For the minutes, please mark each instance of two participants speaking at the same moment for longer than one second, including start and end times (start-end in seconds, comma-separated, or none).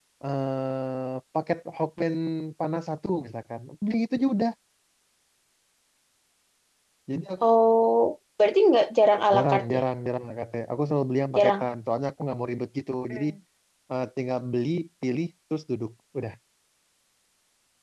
none